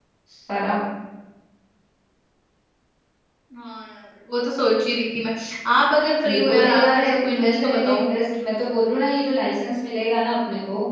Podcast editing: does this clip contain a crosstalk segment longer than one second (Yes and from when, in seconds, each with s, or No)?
Yes, from 6.3 s